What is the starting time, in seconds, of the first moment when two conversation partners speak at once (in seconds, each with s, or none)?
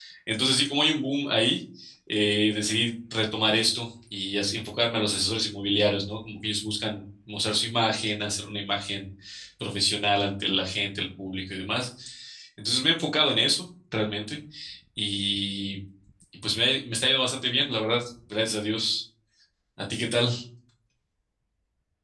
none